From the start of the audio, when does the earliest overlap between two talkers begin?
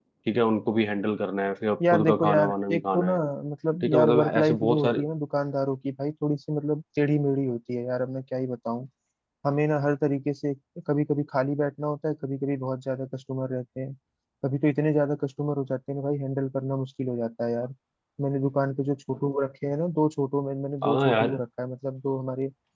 2 s

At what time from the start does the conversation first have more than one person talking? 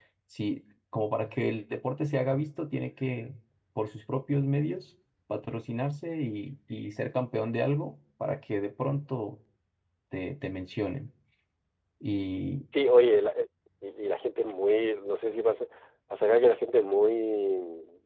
none

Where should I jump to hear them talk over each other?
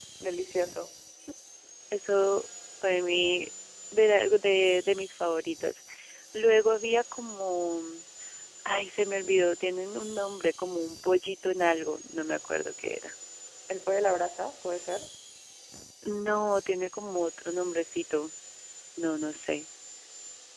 none

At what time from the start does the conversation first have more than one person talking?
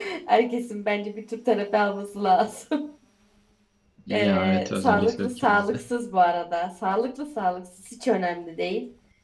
4 s

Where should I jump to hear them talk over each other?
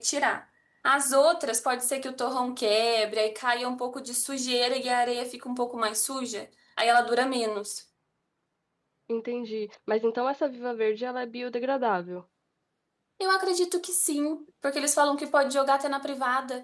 none

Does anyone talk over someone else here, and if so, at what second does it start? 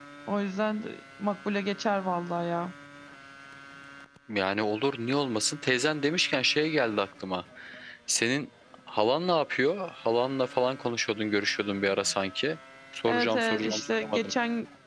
13 s

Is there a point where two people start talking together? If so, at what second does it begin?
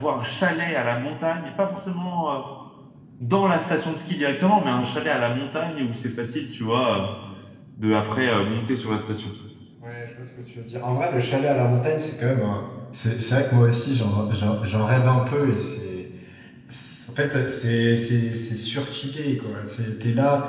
none

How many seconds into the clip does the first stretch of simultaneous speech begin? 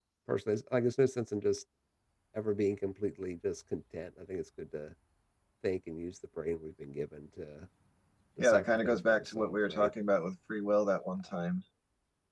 8 s

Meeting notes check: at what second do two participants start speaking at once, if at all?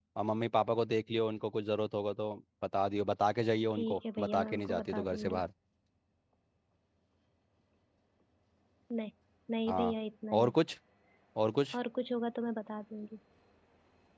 4 s

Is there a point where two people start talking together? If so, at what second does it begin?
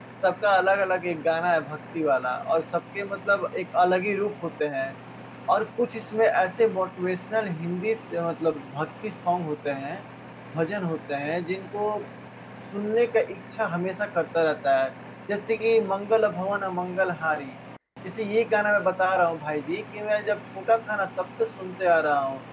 none

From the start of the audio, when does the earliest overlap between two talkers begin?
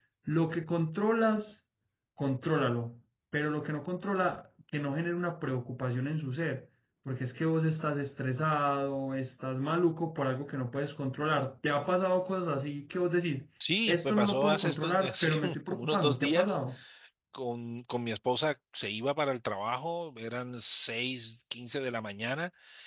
14 s

